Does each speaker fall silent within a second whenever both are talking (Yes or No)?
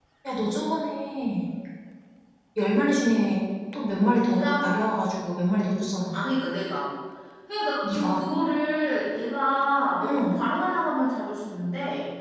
Yes